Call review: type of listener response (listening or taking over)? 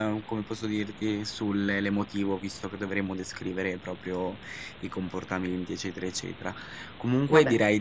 listening